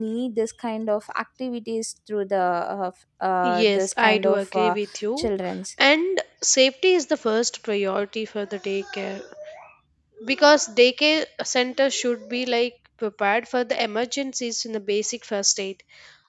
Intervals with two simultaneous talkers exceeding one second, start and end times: 3.4-4.8

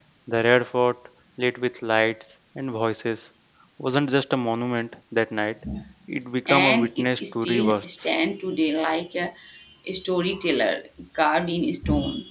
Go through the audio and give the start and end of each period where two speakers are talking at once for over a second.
6.5-8.1

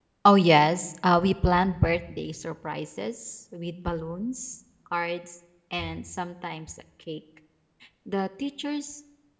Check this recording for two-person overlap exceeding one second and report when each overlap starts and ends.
none

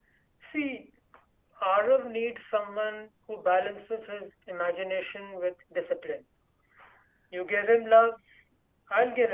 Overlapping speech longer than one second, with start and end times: none

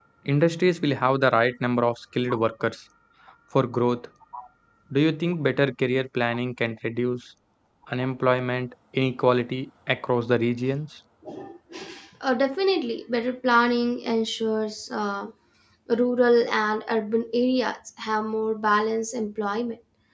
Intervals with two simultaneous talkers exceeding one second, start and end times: none

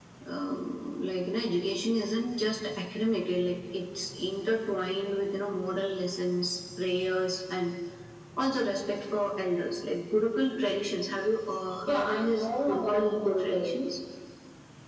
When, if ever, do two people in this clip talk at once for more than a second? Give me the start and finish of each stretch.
11.9-13.8

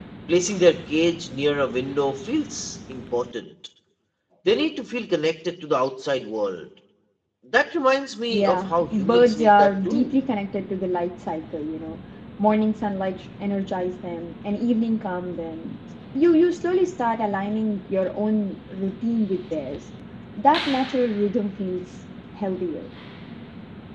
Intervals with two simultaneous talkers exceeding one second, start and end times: 8.3-10.2

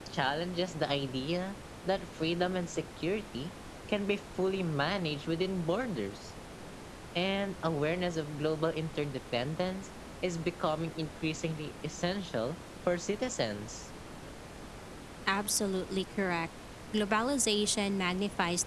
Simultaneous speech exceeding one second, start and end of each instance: none

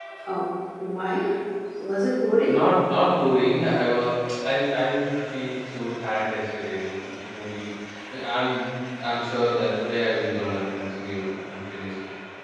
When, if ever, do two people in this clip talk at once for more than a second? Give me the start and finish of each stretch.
none

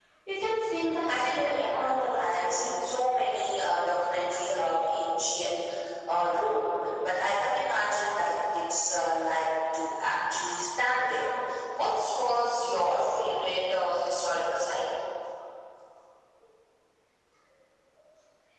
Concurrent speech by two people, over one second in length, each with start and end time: 1.1-2.7

